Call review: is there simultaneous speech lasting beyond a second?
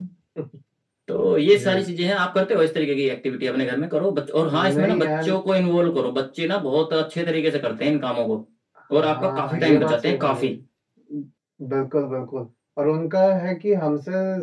Yes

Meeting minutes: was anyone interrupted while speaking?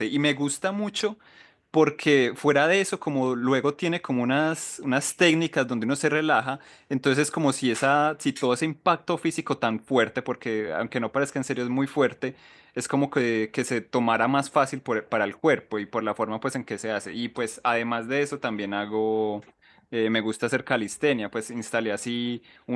No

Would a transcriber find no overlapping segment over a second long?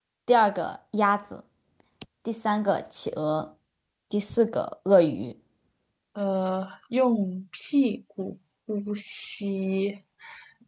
Yes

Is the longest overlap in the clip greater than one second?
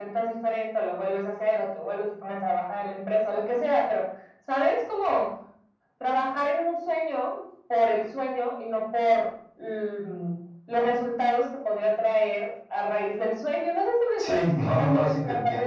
Yes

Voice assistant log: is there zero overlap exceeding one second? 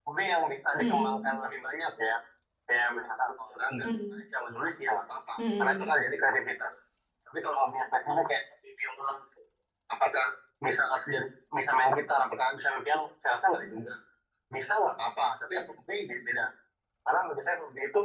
Yes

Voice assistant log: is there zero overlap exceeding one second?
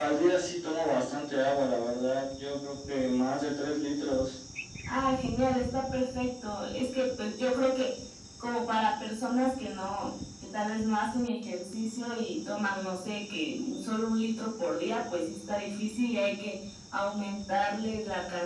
Yes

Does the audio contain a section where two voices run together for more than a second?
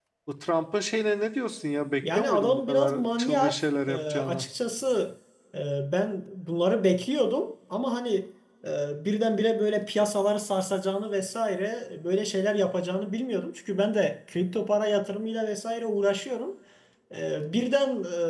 Yes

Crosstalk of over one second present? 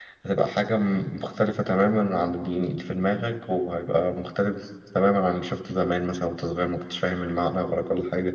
No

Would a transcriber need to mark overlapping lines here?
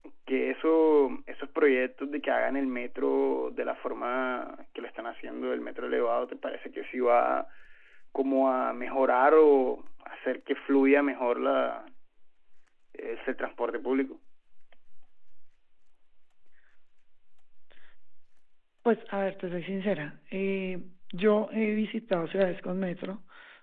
No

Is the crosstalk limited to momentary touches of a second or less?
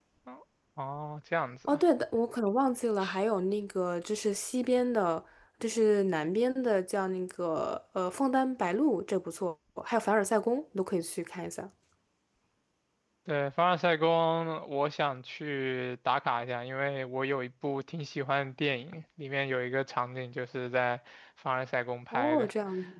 Yes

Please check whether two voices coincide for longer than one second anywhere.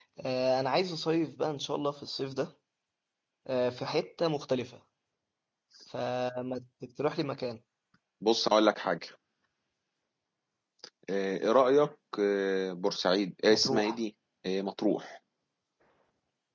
No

